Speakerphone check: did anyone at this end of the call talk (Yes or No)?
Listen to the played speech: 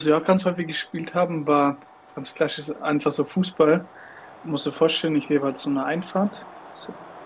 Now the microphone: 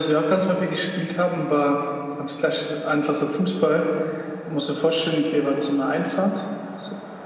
No